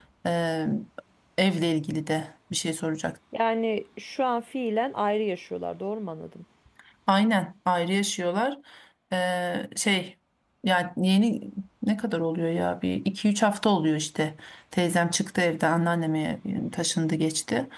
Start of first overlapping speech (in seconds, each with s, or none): none